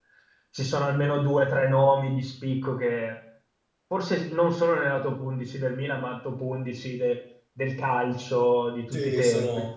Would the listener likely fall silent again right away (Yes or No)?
No